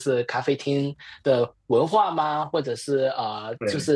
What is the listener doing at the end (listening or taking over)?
listening